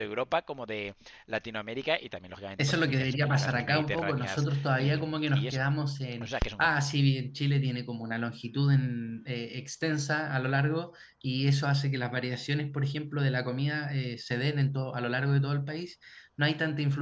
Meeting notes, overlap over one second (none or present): present